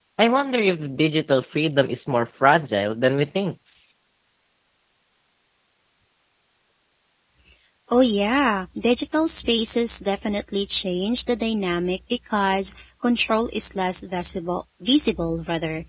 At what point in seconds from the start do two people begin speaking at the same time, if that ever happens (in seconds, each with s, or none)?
none